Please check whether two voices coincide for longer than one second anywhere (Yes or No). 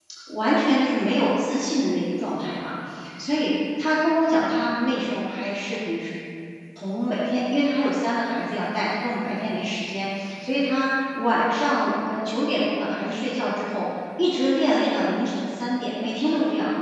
No